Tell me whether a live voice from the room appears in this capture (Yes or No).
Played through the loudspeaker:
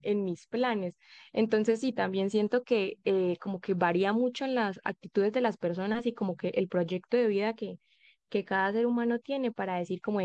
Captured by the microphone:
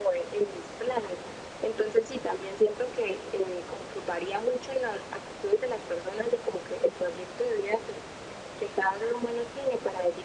No